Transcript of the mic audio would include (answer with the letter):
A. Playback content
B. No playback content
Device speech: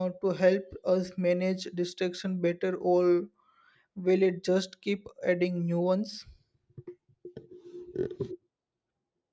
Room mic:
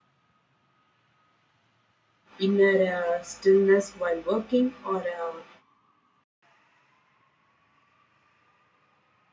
B